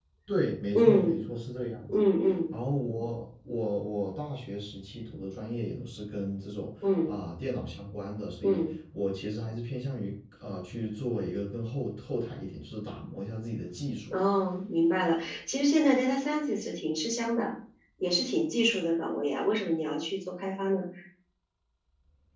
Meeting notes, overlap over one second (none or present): none